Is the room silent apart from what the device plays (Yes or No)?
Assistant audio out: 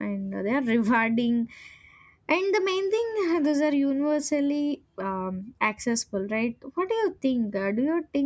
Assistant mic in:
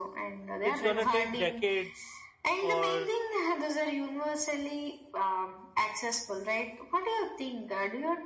No